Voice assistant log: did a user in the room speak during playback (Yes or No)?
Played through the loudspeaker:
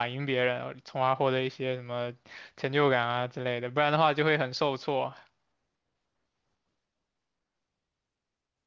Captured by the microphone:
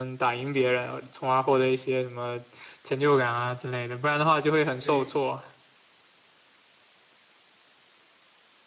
Yes